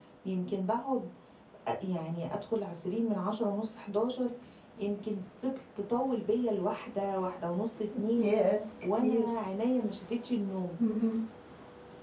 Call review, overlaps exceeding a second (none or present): none